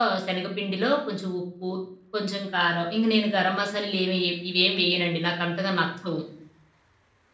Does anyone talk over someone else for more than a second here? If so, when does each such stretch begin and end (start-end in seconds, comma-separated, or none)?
none